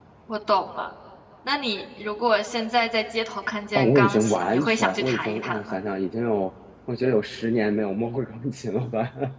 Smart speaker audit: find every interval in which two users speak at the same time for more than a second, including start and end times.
3.8-5.8

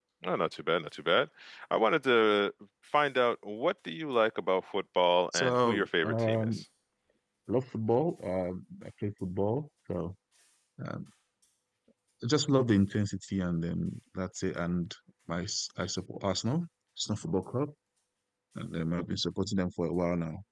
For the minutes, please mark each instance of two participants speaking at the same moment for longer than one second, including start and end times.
5.3-6.6

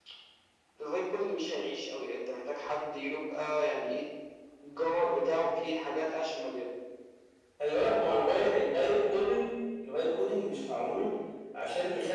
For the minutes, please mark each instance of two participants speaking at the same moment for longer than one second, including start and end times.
none

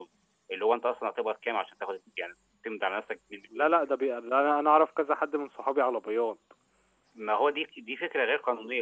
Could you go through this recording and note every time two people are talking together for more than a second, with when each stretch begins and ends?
none

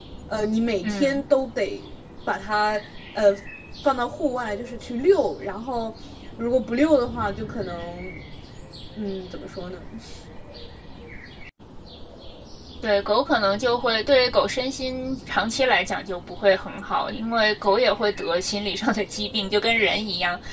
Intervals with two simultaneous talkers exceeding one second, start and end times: none

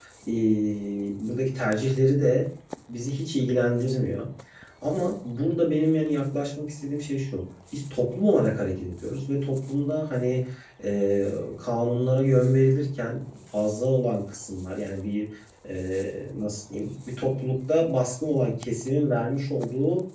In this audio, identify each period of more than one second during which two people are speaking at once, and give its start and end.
none

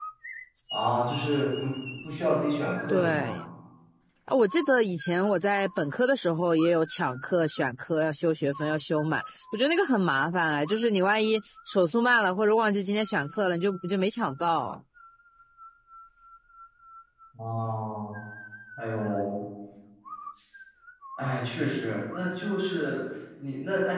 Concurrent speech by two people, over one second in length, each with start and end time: none

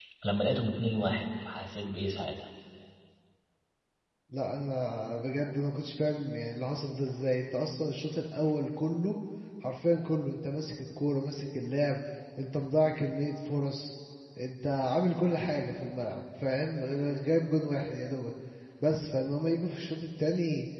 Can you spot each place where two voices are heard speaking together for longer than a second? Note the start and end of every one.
none

